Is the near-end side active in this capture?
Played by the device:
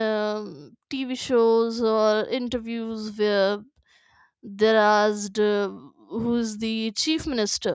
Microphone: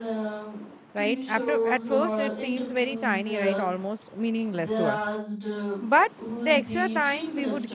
Yes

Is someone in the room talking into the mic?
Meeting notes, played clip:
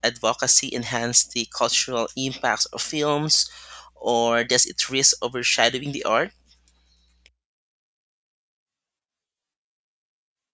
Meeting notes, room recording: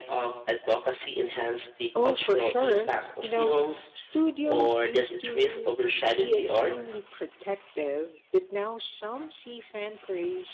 Yes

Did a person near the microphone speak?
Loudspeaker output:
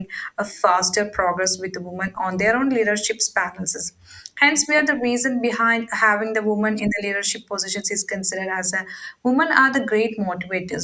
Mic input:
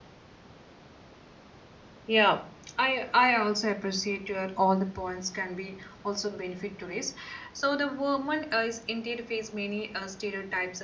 Yes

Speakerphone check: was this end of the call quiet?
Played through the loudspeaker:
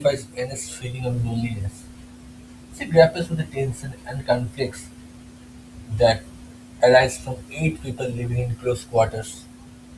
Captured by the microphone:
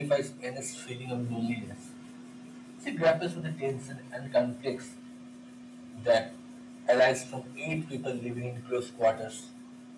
Yes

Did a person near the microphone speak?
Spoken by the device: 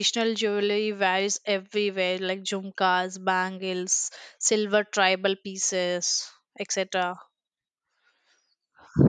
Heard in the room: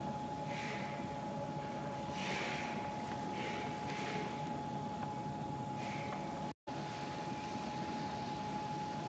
No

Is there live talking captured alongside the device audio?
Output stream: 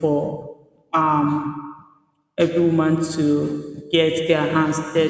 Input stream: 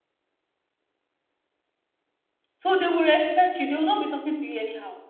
Yes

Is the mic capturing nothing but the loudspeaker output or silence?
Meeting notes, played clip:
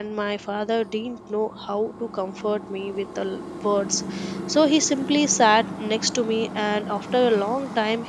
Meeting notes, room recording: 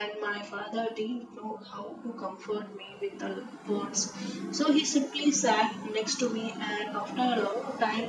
Yes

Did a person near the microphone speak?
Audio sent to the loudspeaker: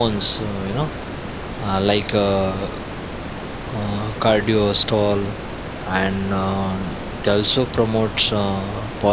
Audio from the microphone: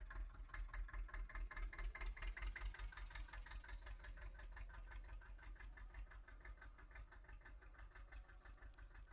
No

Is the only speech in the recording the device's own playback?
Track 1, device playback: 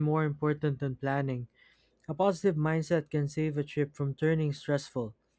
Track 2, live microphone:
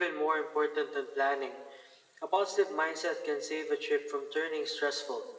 Yes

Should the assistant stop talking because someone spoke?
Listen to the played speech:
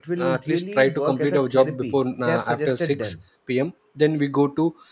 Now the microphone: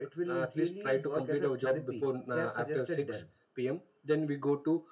No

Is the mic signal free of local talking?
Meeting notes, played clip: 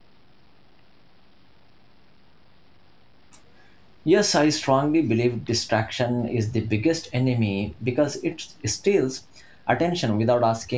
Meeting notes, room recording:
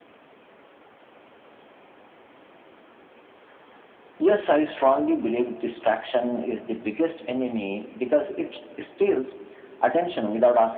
Yes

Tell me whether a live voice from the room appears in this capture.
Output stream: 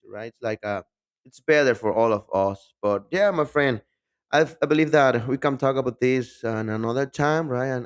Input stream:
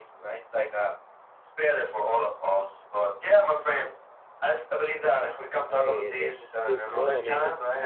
Yes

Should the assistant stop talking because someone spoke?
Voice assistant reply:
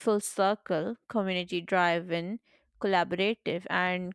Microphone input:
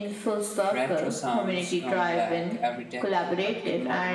Yes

